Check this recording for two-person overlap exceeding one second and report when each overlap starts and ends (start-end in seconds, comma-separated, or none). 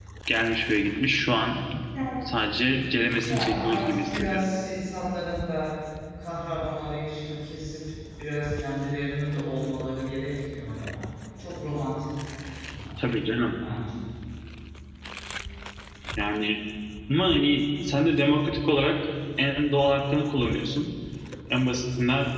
3.2-4.5